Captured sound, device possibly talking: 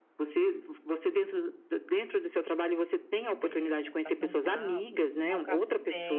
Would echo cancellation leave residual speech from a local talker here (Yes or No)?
Yes